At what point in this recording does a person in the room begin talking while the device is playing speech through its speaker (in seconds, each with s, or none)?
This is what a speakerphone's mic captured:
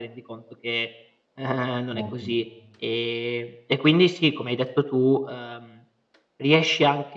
1.9 s